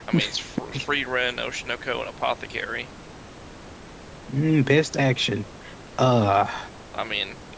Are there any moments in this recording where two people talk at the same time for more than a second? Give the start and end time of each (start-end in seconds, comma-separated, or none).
none